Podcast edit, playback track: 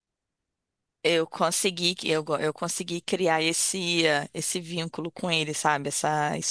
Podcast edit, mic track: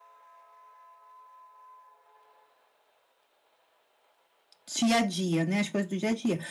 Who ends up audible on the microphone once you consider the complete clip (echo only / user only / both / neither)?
user only